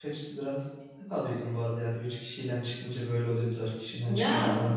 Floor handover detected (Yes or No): No